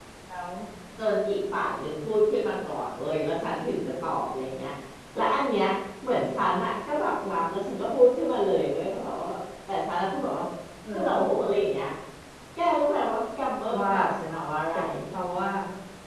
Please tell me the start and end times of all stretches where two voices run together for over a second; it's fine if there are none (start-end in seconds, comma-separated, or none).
none